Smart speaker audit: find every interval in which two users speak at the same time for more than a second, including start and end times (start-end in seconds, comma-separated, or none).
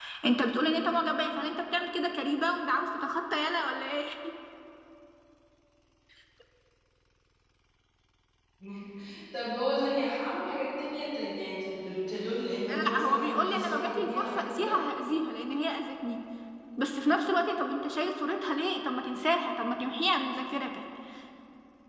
12.7-14.8